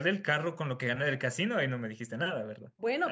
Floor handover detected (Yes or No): Yes